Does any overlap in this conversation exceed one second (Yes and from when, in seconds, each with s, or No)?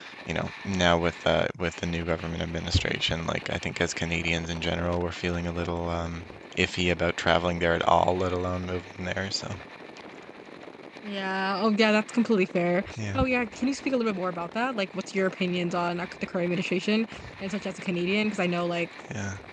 No